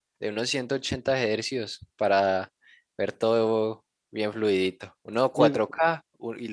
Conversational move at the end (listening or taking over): listening